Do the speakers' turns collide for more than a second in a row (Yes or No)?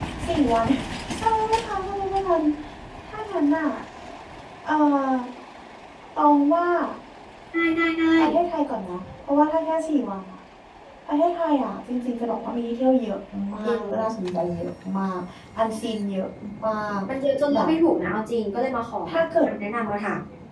No